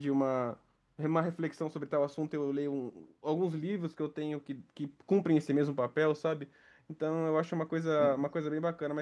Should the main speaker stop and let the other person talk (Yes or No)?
No